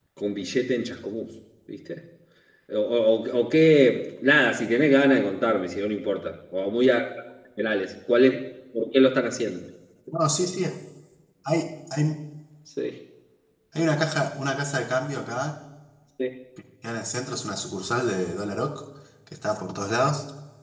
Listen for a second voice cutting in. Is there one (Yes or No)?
No